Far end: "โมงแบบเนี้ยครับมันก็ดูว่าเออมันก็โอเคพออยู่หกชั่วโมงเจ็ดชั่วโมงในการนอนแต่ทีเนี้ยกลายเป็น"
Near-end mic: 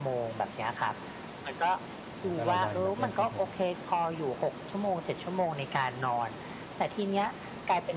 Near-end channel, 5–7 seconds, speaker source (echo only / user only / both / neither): echo only